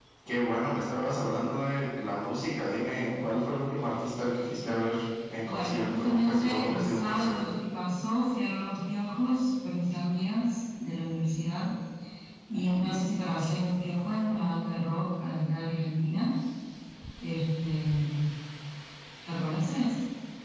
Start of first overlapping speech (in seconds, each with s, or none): 5.5 s